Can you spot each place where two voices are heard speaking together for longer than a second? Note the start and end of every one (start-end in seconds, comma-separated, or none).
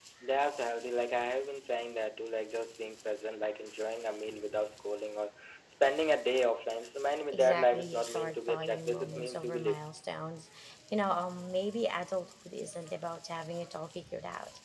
7.3-9.8